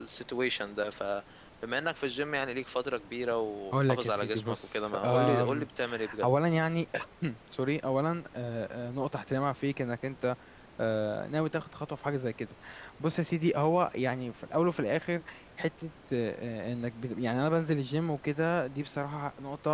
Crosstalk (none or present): present